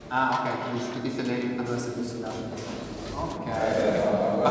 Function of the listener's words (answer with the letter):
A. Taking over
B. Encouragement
A